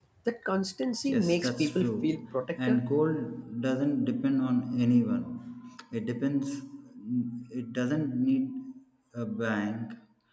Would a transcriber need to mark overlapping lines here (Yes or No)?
Yes